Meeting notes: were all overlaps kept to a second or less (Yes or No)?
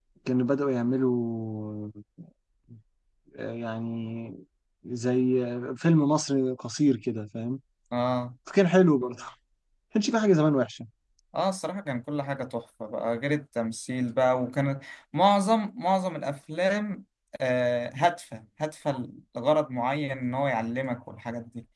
Yes